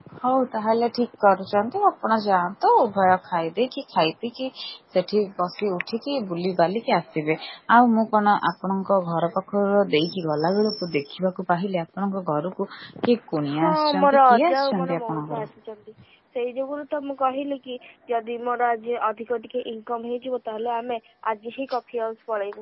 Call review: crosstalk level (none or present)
present